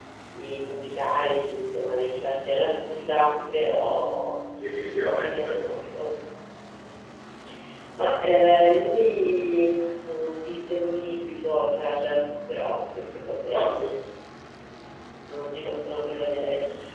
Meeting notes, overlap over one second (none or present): none